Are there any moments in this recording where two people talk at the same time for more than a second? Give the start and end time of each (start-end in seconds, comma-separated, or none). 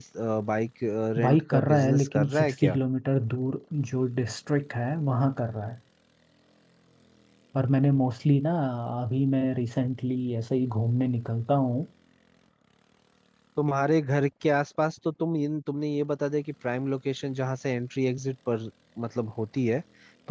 1.2-2.8